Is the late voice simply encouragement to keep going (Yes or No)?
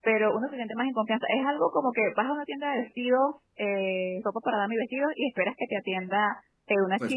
Yes